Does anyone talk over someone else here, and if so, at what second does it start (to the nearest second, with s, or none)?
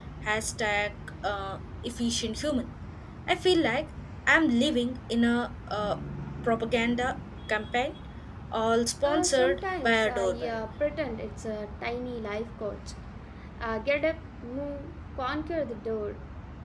9 s